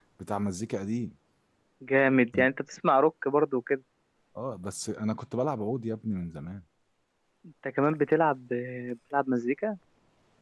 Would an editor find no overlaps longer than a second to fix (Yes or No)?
Yes